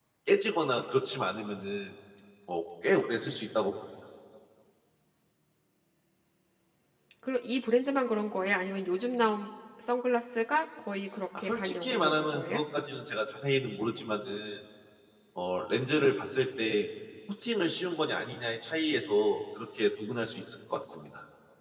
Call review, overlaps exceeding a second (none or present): present